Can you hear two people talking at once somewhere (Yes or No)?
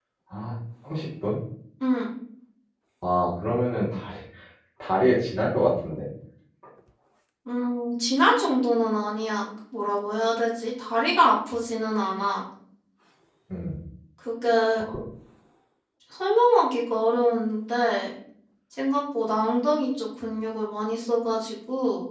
No